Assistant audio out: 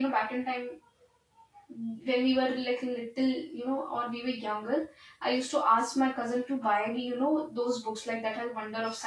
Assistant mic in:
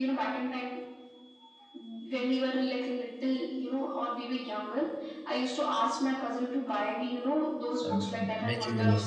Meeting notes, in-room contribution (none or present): present